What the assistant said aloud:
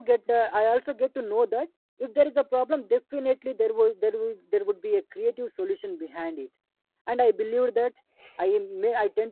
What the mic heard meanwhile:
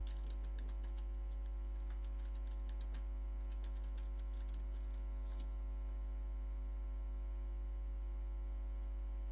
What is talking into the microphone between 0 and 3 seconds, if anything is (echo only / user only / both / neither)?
neither